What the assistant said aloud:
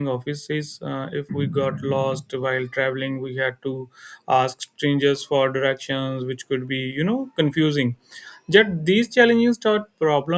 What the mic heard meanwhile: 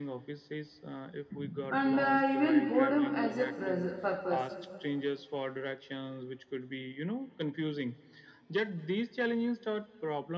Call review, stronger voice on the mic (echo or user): user